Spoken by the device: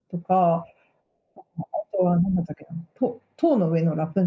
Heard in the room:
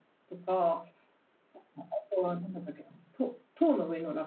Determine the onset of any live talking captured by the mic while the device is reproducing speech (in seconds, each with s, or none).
none